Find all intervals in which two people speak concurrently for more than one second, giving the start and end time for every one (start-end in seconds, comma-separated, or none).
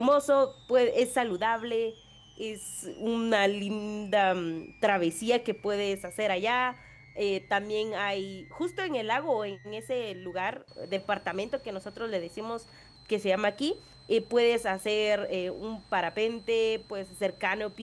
none